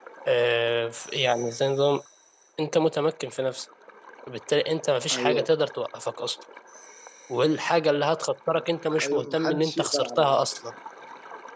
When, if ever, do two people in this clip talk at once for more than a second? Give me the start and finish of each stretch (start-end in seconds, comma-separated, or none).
9.0-10.3